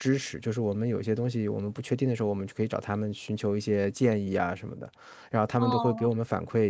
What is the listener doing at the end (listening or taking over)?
listening